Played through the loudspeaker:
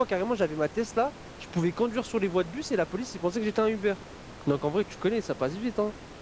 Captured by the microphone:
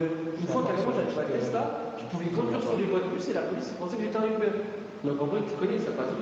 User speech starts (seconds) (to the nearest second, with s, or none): 0 s